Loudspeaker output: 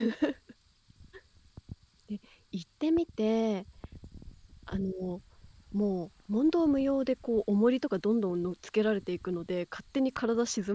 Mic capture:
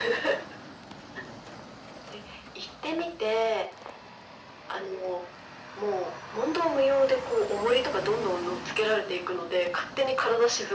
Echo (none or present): present